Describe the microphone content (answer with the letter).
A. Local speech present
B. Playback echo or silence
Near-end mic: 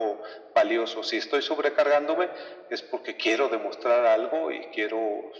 B